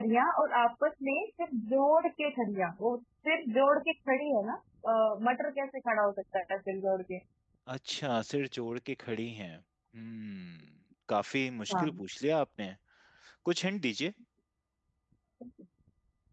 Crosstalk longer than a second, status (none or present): none